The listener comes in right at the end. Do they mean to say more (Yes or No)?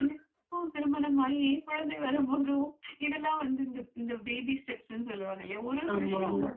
No